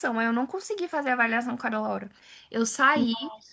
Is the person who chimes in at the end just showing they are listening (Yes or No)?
Yes